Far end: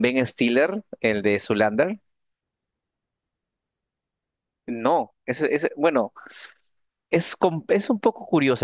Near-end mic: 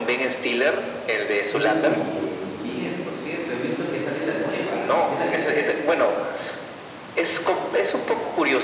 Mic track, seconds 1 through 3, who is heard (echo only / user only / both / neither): both